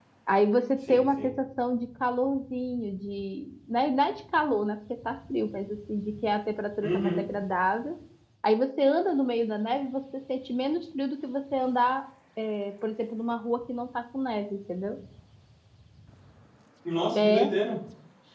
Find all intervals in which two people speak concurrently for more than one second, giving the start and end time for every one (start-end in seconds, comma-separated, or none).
none